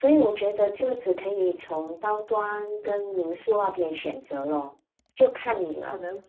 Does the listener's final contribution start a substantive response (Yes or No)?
Yes